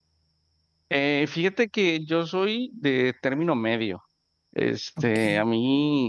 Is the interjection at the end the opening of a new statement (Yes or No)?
No